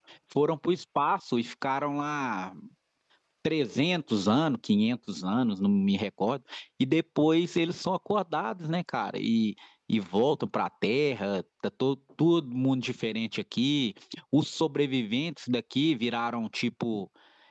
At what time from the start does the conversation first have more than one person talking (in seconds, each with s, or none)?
none